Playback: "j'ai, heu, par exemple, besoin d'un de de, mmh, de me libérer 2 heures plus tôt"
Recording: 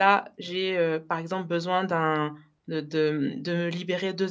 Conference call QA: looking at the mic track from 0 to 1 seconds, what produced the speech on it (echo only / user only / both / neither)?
echo only